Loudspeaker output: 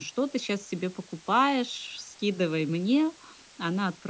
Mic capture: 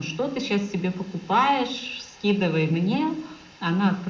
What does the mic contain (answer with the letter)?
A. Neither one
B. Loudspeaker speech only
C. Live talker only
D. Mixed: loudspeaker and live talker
B